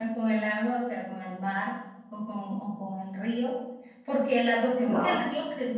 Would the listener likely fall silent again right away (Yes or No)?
Yes